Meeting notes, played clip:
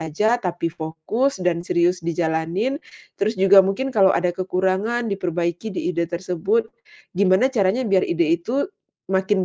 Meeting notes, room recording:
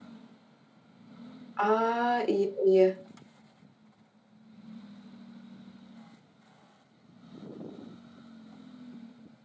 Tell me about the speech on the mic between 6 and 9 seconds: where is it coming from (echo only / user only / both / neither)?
neither